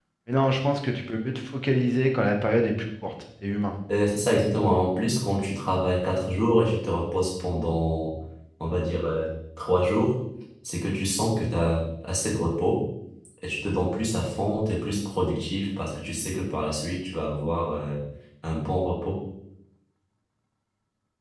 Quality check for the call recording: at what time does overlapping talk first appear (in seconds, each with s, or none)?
none